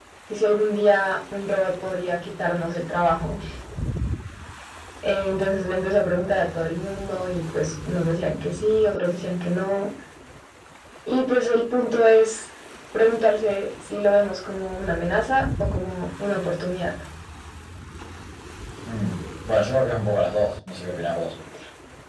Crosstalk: none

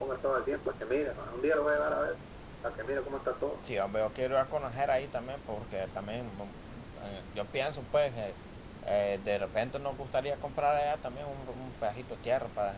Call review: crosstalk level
none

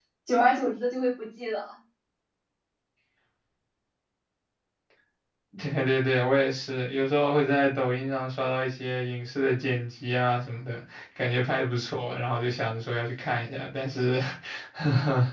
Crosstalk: none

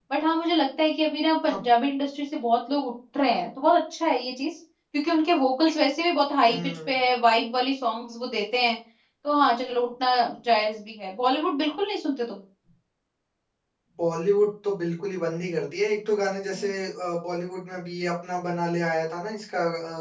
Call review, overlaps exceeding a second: none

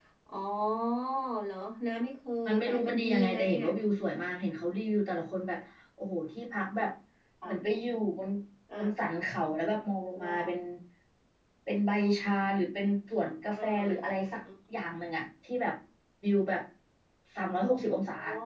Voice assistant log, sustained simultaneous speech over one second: present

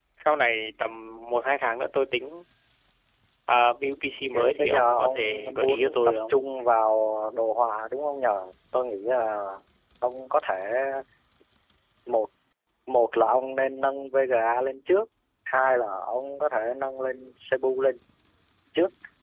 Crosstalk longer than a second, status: present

